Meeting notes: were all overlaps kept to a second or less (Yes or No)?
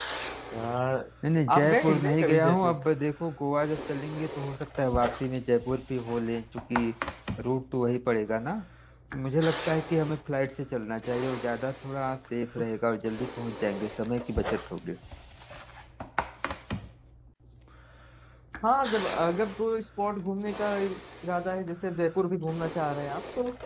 No